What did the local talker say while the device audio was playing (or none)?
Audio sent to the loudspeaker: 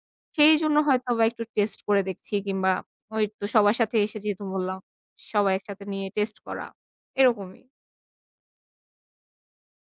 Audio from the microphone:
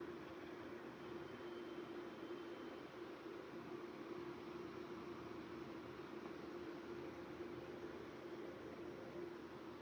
none